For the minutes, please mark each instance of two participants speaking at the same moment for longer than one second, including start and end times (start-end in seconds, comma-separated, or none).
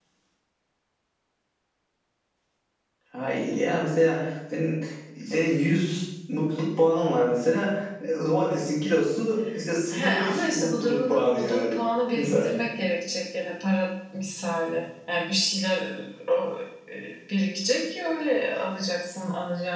9.9-11.8